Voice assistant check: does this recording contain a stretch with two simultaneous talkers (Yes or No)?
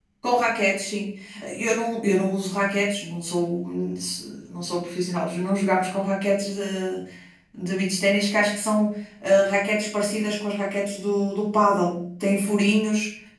No